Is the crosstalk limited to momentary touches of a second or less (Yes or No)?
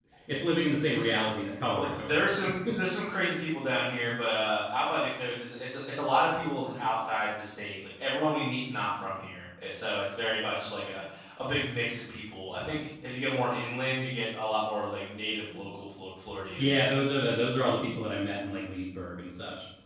Yes